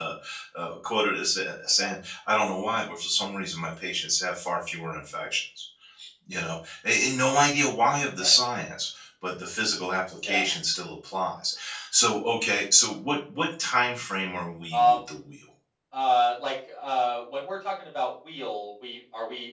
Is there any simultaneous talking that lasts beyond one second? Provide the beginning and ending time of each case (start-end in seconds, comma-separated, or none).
none